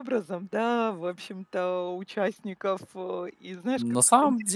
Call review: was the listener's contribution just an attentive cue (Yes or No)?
No